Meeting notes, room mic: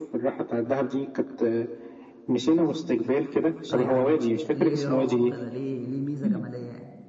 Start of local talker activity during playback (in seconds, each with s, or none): 3.7 s